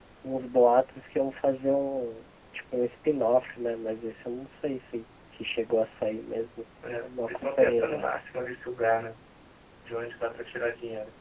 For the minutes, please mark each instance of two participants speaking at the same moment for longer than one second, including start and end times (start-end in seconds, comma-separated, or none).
6.8-8.3